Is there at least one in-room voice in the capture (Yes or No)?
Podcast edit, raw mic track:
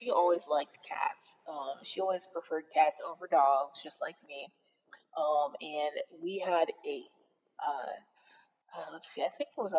No